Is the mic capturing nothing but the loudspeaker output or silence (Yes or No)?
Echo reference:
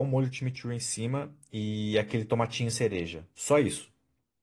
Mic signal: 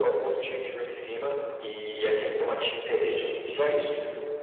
Yes